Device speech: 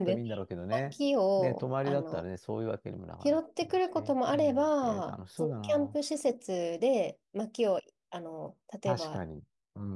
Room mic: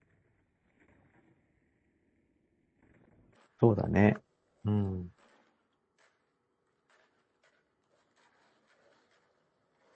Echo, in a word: none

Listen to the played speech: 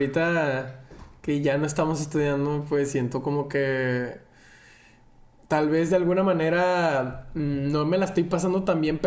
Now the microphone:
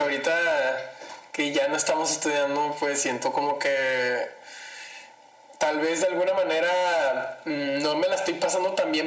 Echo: present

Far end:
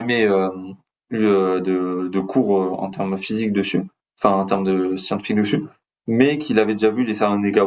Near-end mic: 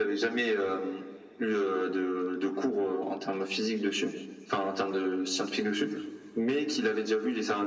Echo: present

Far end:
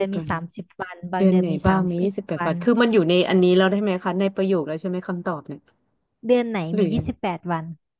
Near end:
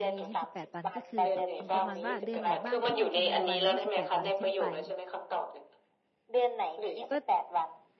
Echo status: present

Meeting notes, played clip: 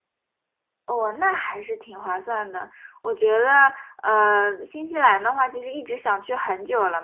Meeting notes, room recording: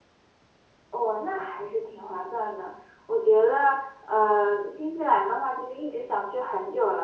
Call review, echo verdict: present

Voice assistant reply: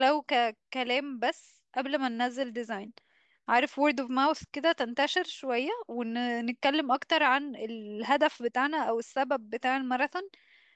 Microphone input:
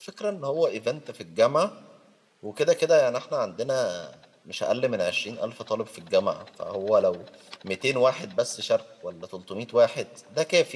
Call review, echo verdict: none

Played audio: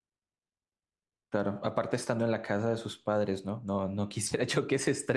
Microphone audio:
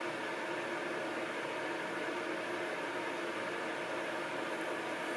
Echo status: none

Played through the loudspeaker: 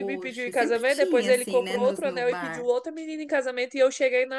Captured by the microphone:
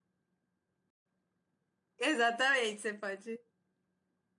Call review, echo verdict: none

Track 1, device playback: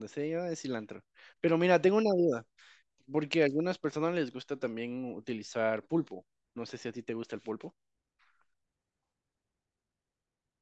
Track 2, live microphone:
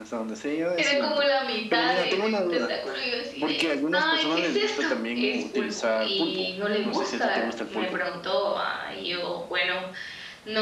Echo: present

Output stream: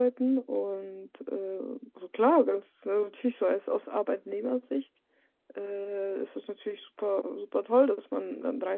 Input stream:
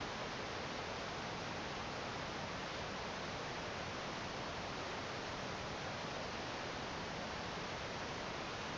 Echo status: none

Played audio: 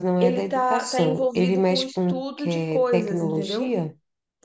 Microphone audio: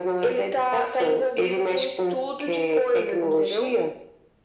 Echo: present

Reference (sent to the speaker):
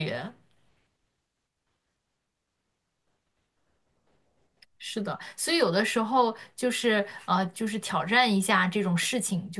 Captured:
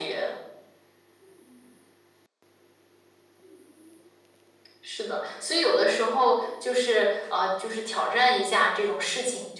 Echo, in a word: present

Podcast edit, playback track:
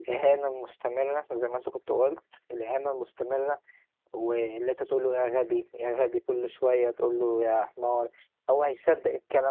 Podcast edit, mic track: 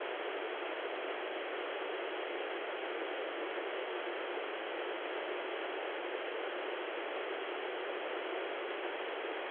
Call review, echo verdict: none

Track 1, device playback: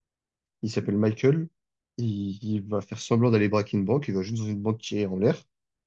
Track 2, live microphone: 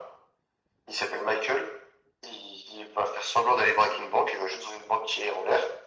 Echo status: present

